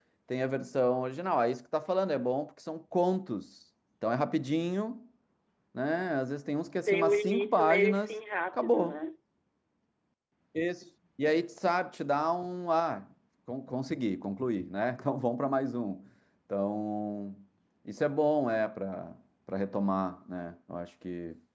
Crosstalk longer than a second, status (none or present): present